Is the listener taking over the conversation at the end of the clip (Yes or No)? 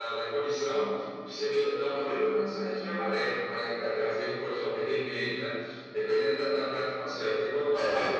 No